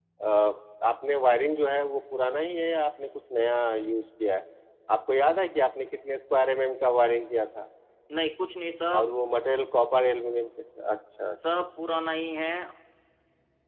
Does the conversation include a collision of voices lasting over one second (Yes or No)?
No